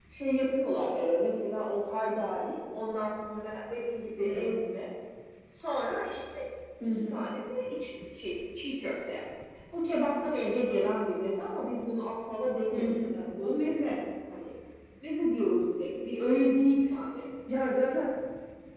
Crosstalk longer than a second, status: none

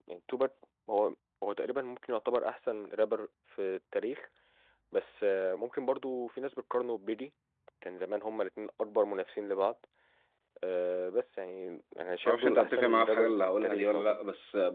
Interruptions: present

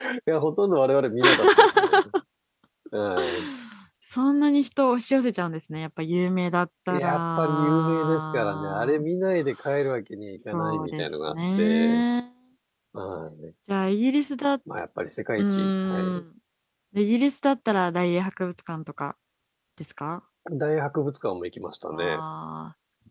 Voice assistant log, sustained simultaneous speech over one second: present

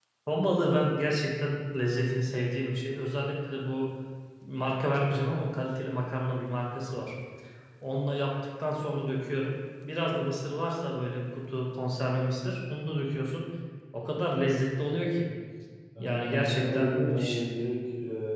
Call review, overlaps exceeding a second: present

